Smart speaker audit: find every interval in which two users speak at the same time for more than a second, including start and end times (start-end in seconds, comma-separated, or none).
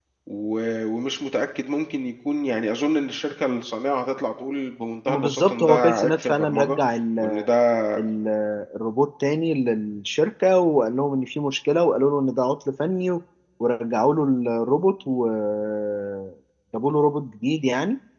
5.1-6.8